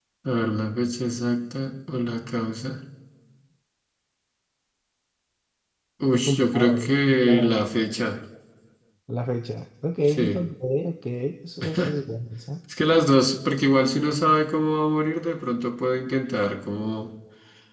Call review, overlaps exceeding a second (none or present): present